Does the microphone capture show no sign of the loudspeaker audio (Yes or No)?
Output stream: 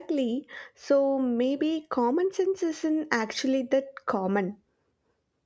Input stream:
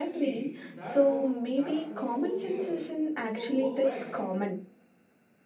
No